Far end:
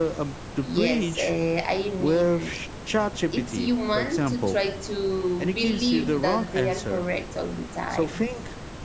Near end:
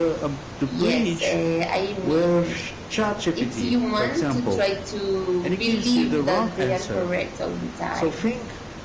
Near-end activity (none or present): none